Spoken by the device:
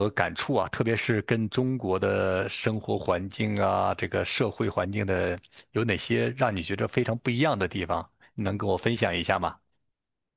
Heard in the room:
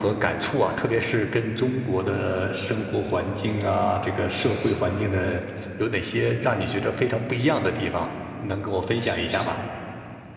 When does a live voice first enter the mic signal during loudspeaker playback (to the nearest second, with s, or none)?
none